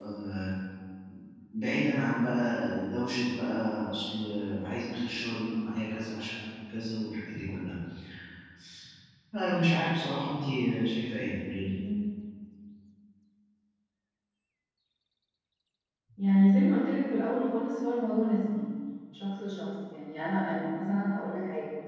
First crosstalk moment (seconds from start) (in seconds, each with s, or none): none